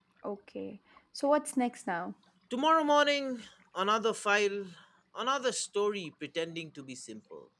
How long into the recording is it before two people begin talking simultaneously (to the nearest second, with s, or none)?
none